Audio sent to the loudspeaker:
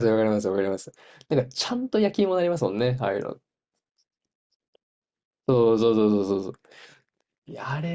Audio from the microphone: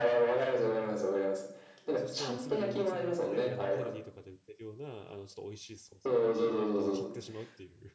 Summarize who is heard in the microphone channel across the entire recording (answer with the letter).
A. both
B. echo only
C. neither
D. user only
A